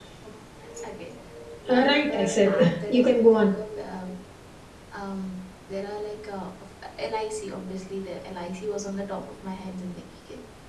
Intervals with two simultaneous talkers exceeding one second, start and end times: 1.7-3.5

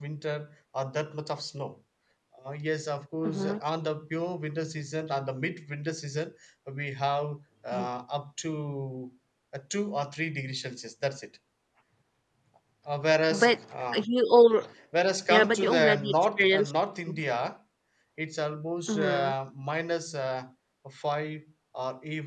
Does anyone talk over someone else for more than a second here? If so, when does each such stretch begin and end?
15.3-16.7

